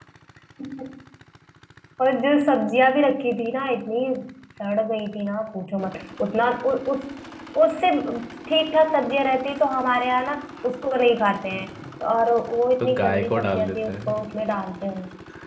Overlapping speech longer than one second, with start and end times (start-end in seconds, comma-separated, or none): 12.8-14.1